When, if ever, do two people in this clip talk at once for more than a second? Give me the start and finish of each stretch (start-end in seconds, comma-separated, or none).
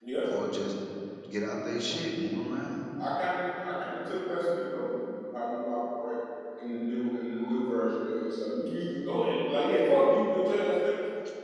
none